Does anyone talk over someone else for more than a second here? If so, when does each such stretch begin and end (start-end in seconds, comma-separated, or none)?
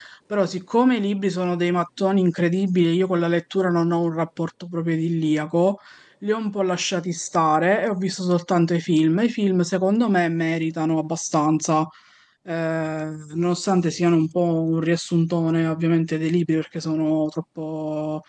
none